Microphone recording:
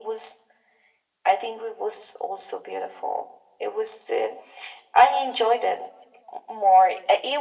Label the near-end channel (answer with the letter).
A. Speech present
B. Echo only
B